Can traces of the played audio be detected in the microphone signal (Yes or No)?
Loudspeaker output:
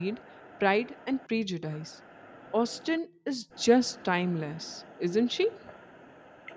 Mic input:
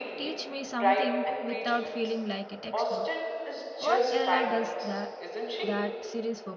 Yes